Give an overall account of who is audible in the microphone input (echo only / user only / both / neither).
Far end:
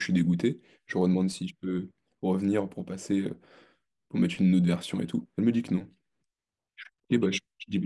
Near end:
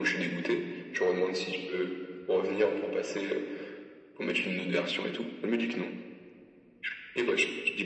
echo only